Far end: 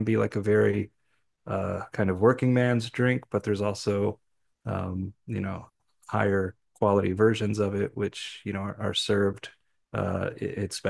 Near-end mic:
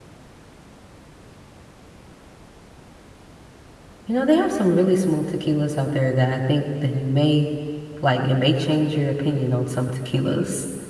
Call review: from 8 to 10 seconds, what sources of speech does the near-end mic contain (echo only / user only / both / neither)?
user only